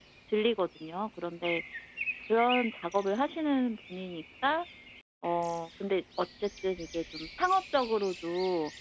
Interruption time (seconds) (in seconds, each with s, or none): none